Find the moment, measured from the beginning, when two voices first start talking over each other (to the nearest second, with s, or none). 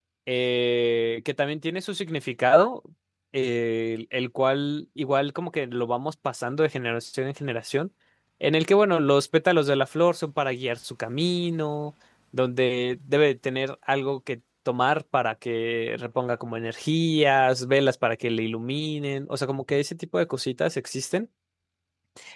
none